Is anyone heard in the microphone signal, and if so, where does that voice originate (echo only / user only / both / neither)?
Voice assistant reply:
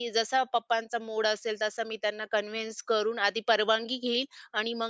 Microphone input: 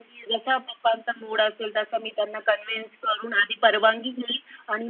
echo only